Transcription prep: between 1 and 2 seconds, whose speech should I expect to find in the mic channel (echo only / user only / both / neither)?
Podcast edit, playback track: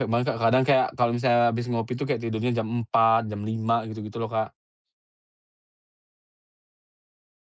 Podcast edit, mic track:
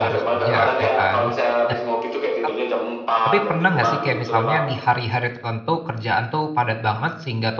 both